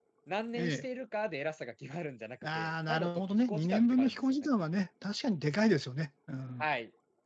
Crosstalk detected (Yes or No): Yes